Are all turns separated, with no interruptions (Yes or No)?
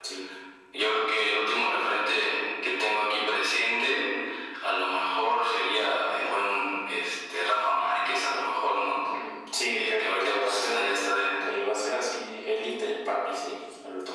No